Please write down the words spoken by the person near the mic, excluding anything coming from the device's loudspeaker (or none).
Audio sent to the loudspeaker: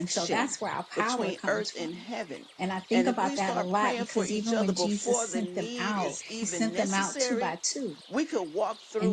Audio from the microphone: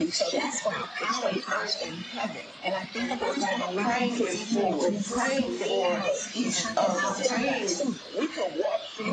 praying it forward, praying for each other. Praying